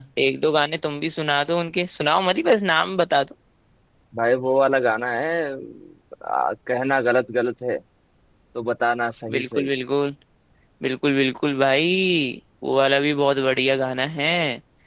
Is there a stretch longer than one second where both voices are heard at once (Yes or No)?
No